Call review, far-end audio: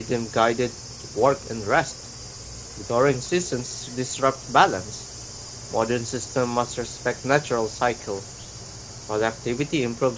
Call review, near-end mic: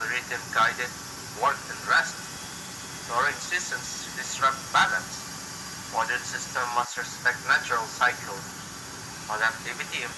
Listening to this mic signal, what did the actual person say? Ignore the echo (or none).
none